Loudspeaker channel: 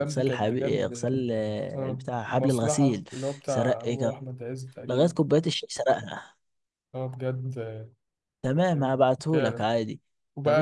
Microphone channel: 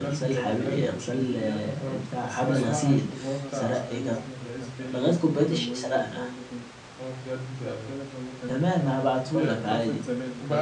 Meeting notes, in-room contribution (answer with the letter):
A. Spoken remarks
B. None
A